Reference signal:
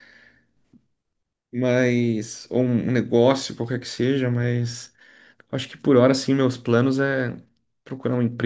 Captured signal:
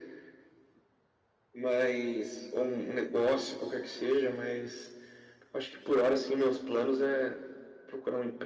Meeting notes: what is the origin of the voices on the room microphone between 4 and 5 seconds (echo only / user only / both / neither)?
echo only